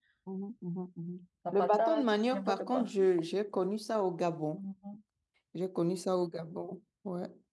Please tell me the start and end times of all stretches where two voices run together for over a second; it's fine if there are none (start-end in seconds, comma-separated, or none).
1.5-2.9